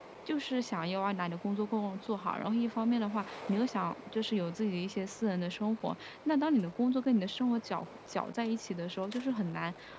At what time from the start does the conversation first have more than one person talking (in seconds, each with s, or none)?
none